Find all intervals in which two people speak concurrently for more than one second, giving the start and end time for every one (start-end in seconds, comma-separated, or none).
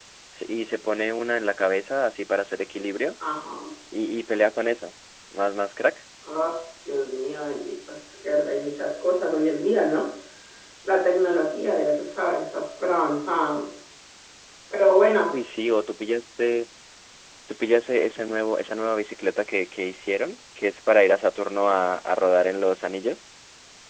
none